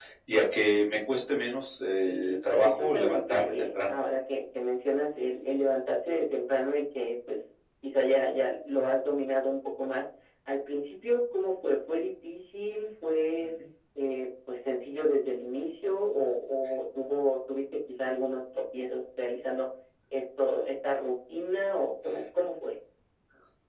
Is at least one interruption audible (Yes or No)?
Yes